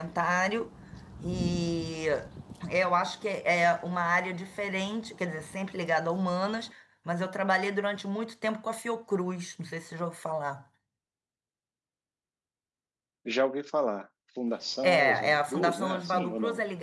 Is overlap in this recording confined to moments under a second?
No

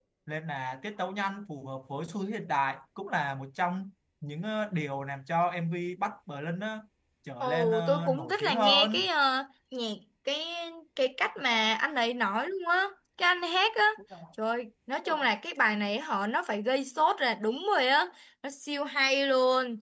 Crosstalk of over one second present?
Yes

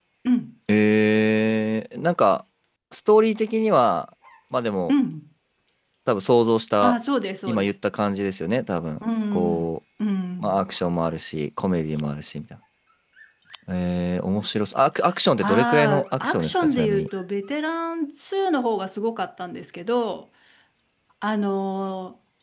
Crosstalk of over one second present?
Yes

